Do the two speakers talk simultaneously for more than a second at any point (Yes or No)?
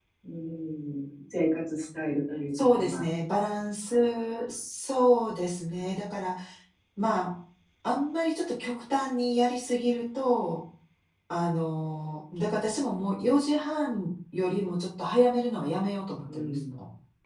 No